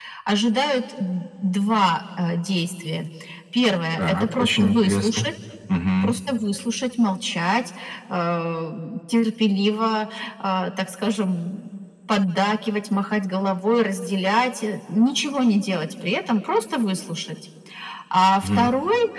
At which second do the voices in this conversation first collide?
4.0 s

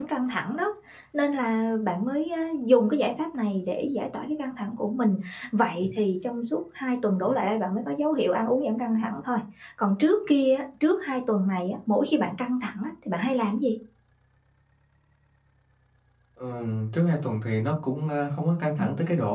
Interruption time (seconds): none

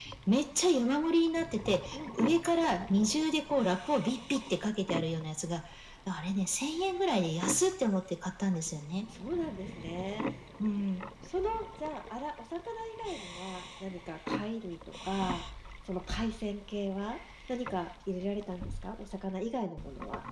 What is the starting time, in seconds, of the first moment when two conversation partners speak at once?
none

